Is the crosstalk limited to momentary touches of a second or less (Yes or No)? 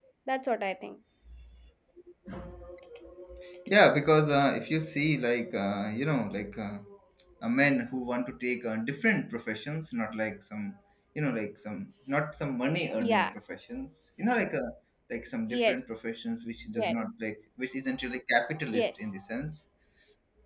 Yes